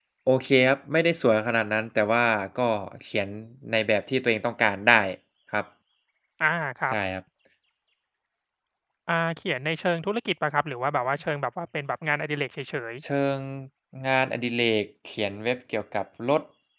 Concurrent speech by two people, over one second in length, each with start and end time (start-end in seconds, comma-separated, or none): none